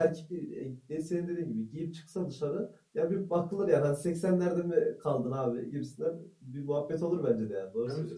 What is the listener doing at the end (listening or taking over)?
taking over